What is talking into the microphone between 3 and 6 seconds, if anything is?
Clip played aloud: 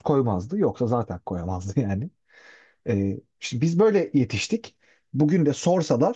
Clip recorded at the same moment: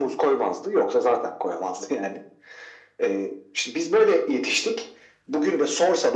echo only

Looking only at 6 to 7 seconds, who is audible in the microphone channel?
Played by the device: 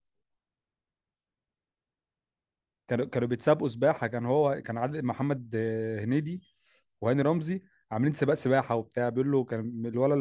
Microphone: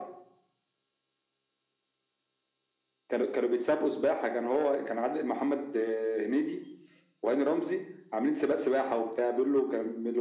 echo only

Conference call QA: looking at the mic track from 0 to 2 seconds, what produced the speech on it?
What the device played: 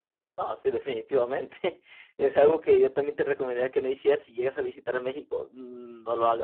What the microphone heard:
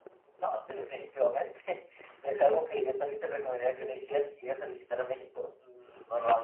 echo only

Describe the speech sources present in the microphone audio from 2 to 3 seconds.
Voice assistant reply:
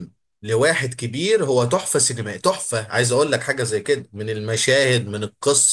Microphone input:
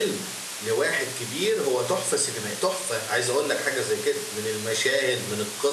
echo only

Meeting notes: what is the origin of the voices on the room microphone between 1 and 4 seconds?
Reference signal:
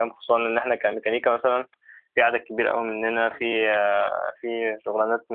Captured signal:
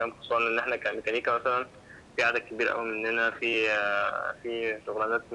echo only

